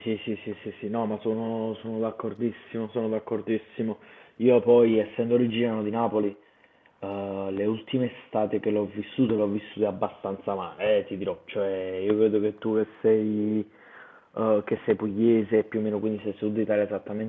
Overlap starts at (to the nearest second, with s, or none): none